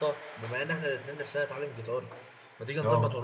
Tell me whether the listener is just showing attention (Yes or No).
Yes